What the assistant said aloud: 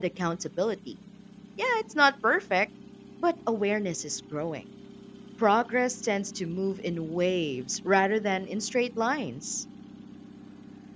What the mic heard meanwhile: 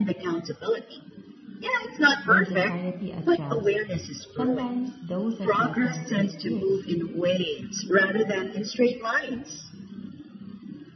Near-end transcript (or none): then society adjusts. Sometimes those adjustments take years,